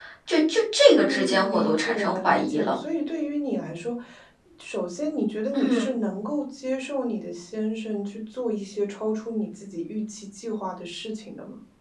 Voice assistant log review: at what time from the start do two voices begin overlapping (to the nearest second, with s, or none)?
1 s